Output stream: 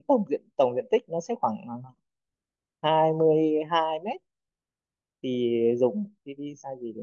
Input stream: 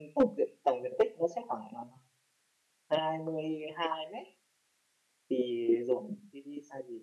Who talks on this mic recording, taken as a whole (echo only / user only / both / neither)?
echo only